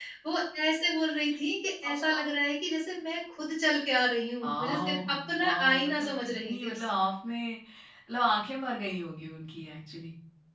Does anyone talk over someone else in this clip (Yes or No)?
Yes